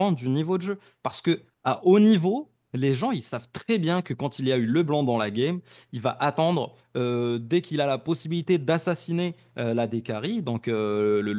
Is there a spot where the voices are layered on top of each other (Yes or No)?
No